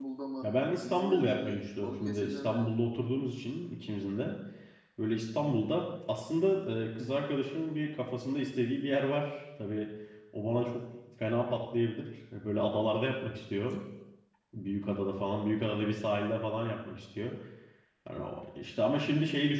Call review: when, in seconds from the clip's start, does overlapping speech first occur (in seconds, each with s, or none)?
0.8 s